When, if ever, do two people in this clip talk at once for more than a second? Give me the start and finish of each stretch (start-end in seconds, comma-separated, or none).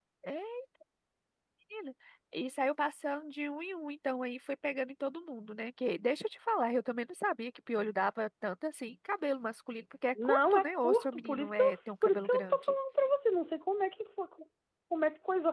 10.2-12.7